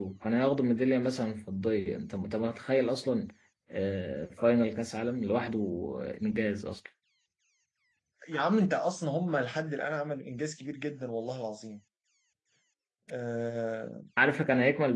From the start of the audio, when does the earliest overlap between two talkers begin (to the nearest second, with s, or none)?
none